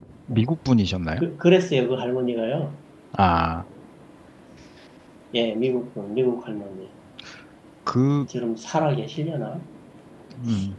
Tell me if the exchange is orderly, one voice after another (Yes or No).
Yes